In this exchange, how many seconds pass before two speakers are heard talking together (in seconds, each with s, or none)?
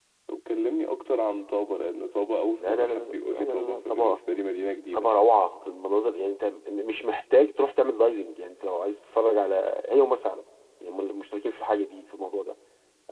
2.5 s